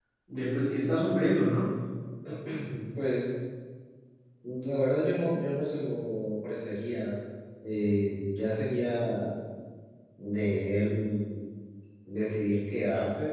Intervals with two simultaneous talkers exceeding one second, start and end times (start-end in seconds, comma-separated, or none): none